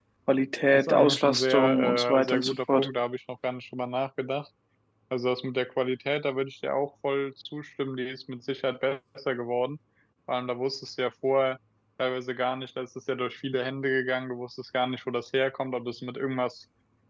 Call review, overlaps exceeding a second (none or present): present